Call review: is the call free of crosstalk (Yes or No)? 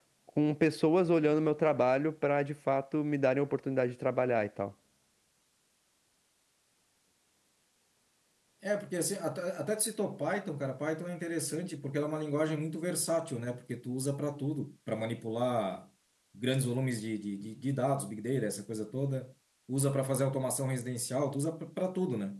Yes